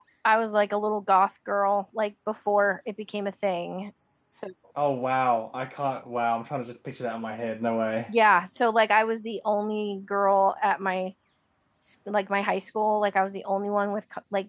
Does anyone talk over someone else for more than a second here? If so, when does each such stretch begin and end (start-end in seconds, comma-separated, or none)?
none